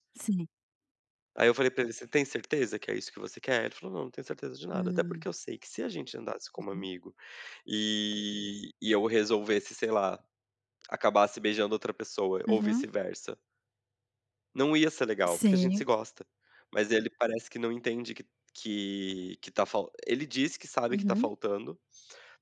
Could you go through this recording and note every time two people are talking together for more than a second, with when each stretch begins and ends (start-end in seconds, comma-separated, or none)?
none